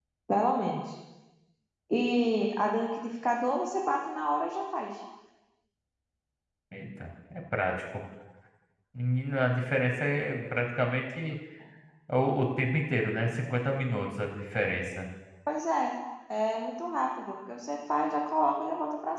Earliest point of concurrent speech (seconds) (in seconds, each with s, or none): none